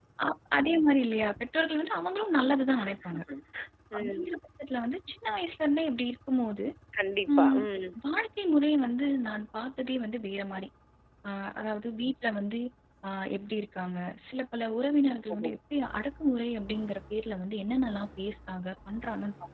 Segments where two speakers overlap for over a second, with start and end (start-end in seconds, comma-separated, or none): none